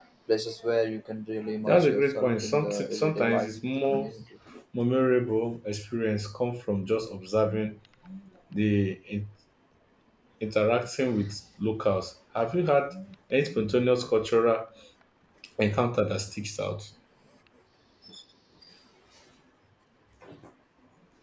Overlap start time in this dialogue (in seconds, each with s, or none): 1.7 s